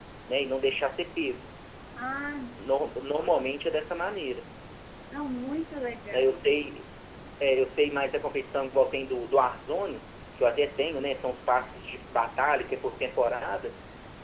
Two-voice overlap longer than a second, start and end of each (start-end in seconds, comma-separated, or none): none